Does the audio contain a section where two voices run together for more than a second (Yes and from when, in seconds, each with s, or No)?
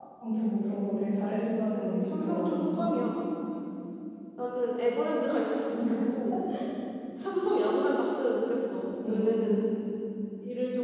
Yes, from 1.7 s